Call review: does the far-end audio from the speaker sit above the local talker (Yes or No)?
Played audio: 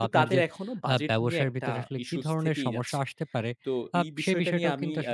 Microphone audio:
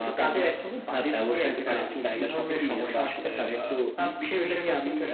Yes